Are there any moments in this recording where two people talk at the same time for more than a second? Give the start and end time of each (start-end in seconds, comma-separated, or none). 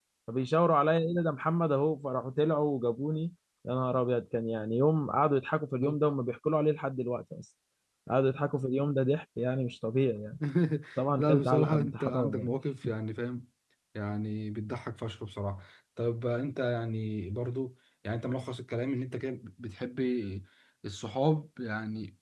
11.2-12.5